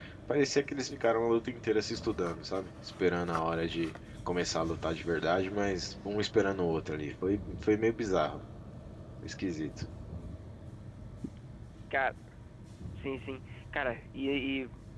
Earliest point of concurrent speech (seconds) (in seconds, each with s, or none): none